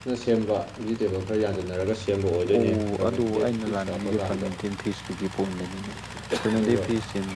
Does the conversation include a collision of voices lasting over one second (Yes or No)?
Yes